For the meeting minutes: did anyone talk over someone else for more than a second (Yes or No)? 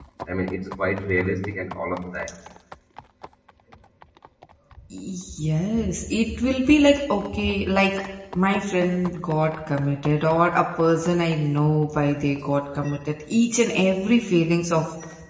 No